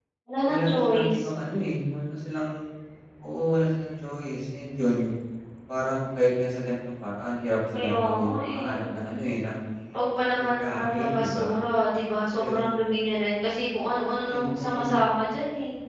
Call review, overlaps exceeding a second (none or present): present